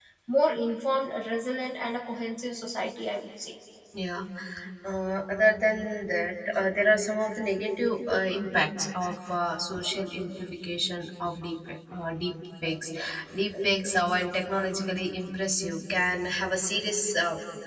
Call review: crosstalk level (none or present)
none